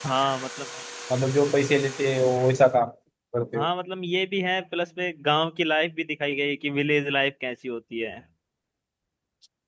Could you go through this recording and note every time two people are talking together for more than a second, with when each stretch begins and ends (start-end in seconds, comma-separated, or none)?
none